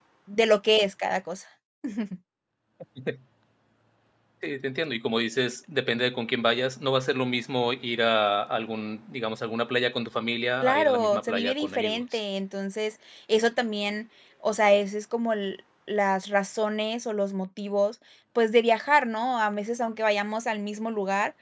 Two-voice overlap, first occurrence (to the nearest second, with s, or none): 11 s